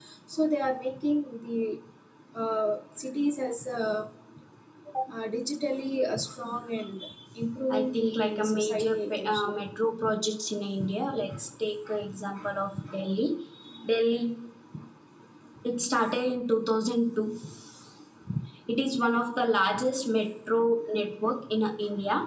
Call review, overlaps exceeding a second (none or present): present